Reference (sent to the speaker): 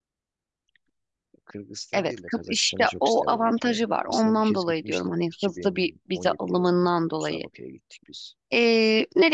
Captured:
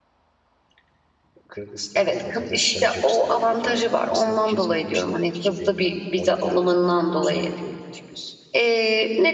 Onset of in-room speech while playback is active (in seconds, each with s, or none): none